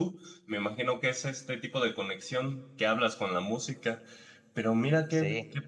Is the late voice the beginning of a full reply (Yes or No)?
No